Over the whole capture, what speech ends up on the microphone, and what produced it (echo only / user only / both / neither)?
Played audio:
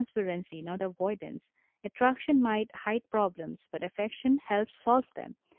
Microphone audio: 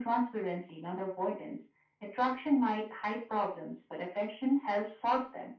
echo only